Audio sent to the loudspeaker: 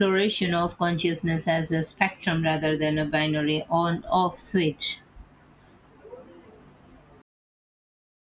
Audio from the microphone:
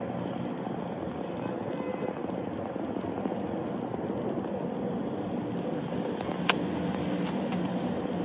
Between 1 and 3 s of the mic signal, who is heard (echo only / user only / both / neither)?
neither